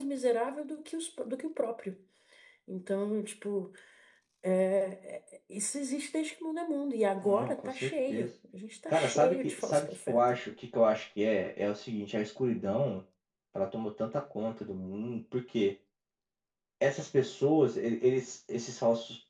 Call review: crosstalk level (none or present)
present